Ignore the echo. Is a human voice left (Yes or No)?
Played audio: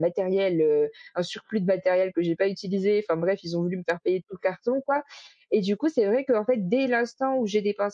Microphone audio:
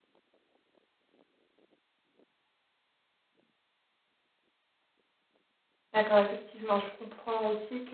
Yes